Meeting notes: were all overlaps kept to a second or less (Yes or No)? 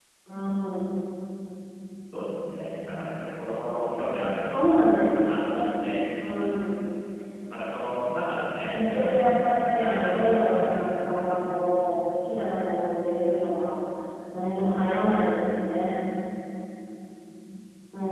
No